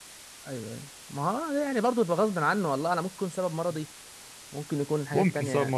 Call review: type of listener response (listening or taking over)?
taking over